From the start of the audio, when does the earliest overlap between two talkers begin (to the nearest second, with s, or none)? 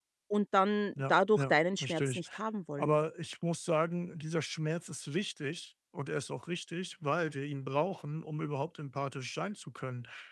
1 s